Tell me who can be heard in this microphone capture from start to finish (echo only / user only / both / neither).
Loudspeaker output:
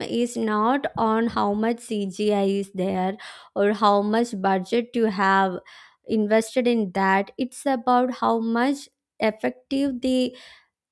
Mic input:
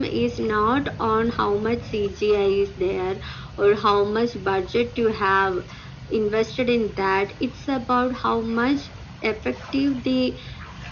echo only